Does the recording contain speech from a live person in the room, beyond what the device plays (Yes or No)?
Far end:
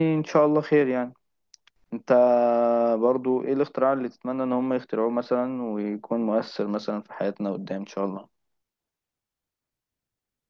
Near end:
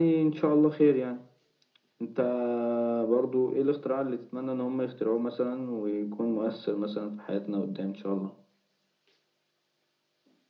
No